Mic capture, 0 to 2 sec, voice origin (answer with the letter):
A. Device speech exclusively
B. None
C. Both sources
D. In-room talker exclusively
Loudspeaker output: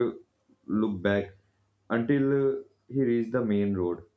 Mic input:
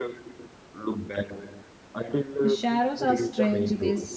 A